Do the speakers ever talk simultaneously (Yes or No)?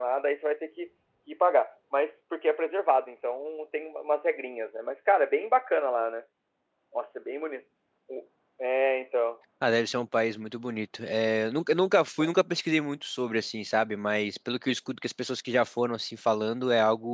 No